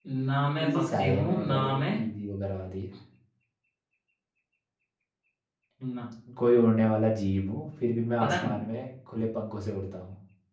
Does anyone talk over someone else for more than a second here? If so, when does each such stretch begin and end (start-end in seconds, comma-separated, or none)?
0.6-1.8